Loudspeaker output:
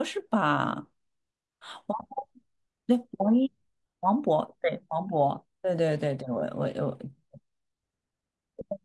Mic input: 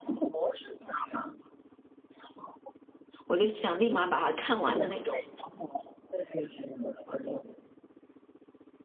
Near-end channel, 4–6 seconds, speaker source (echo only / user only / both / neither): both